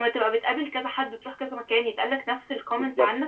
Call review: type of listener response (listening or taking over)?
taking over